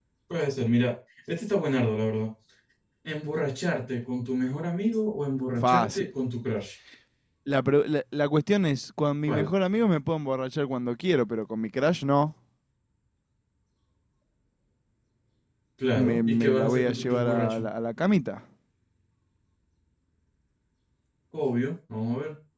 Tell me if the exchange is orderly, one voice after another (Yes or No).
No